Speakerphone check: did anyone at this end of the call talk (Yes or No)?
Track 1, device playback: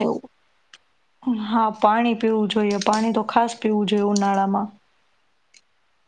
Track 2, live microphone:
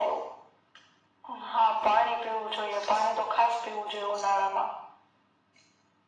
No